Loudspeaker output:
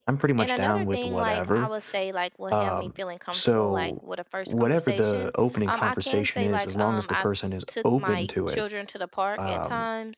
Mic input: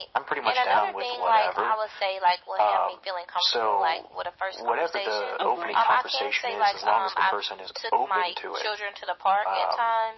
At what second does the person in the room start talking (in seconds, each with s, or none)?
5.4 s